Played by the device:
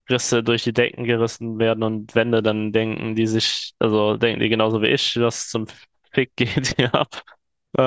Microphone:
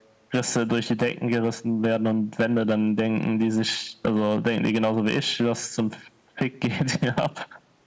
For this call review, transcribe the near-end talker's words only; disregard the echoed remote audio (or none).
none